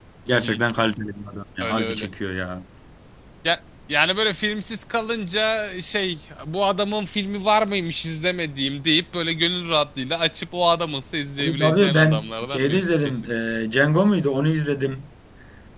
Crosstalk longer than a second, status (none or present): present